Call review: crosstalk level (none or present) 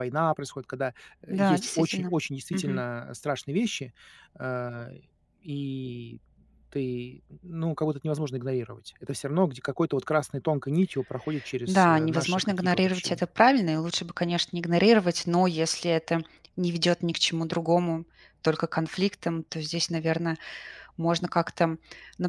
present